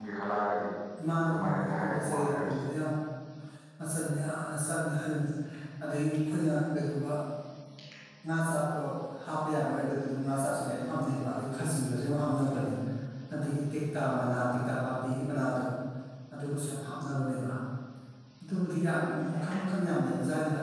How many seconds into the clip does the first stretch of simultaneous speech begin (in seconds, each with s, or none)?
1.2 s